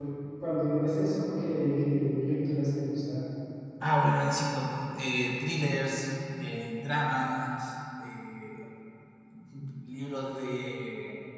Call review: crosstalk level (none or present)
none